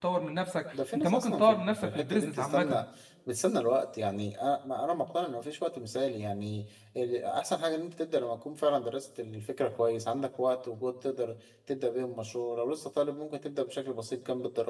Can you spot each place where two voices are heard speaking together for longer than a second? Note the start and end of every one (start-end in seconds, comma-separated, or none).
0.9-2.8